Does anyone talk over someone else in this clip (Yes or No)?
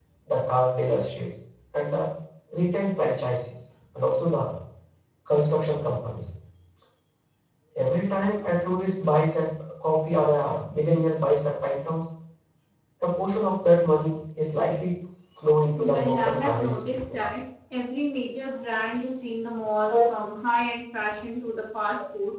Yes